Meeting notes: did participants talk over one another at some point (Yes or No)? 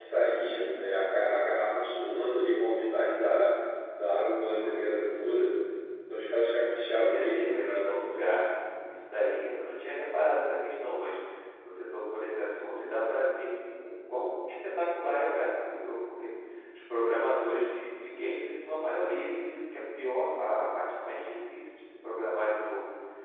Yes